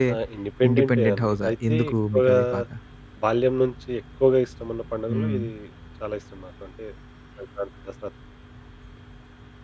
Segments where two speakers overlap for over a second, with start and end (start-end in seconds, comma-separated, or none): 0.7-2.4